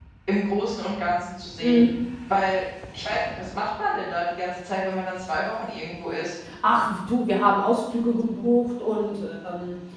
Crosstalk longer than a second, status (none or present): none